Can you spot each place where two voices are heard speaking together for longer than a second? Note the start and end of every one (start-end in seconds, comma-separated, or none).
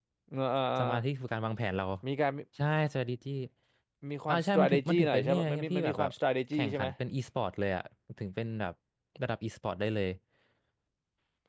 4.3-6.1